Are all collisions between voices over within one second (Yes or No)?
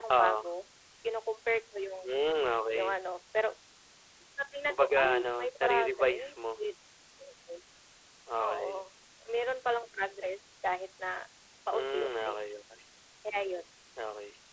No